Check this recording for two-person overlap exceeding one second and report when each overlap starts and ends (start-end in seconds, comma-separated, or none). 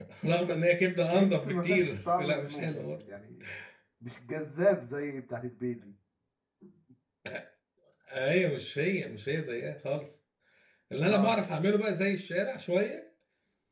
1.1-3.0